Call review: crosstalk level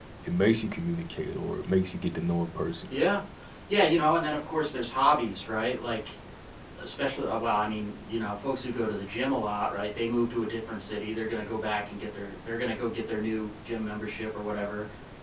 none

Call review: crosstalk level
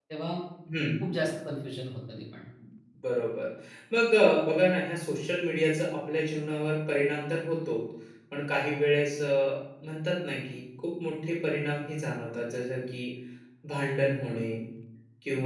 none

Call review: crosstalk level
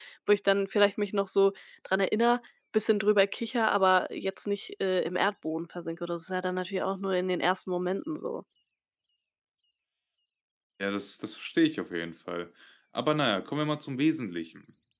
none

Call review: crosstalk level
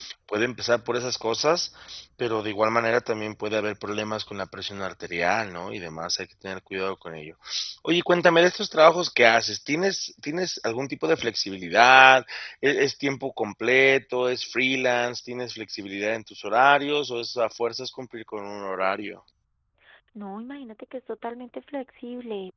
none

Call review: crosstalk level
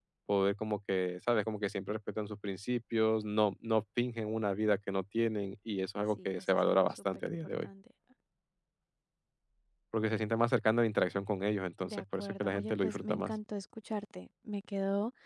present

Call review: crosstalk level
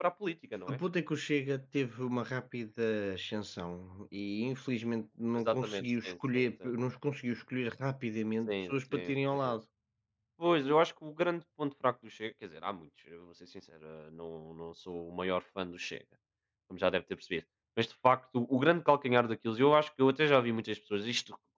present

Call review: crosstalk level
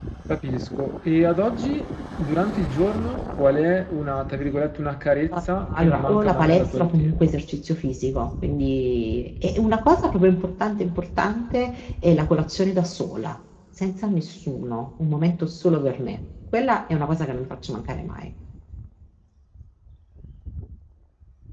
present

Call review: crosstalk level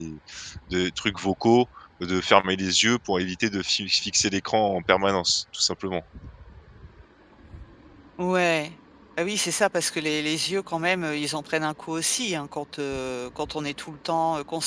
none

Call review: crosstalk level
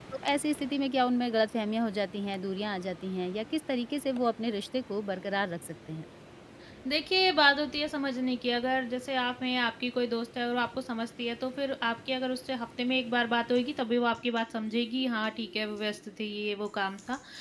none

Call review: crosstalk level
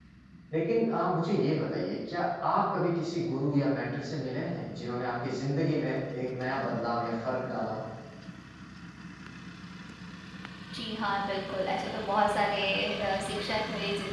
none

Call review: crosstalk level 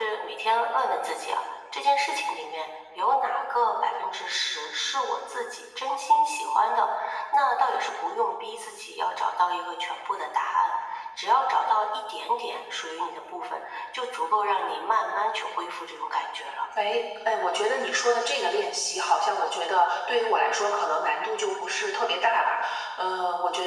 none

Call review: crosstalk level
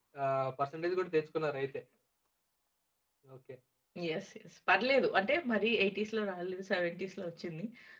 none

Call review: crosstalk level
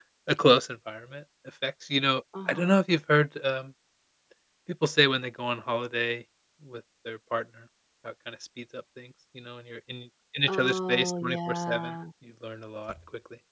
present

